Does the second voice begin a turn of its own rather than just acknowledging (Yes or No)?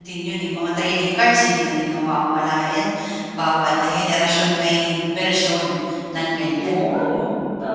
Yes